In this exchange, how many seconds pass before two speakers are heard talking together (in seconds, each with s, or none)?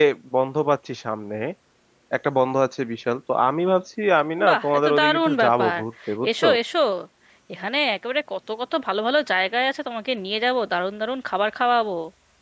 4.5 s